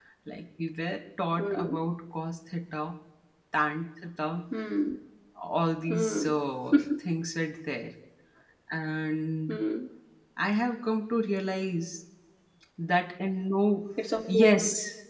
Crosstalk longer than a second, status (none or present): none